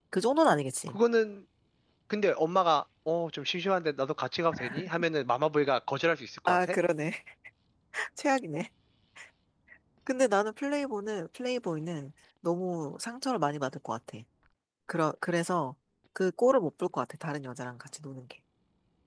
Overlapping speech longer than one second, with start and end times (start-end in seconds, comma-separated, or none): none